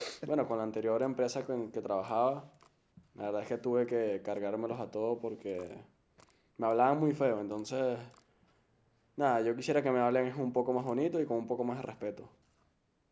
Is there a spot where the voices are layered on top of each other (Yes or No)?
No